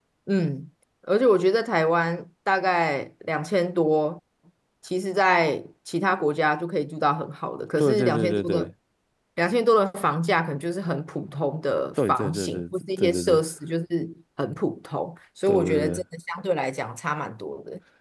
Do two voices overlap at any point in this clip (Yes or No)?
Yes